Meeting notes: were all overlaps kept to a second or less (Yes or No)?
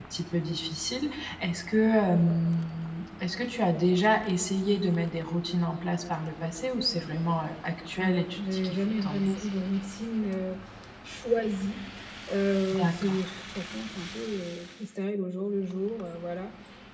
No